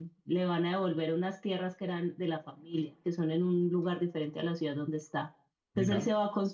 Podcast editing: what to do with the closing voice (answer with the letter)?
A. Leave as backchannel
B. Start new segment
A